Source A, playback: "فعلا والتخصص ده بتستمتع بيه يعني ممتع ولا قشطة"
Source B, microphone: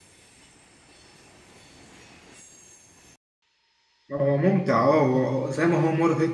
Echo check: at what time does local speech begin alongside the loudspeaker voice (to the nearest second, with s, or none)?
4 s